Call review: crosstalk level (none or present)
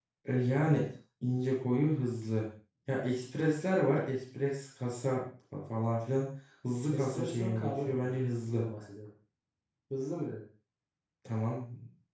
present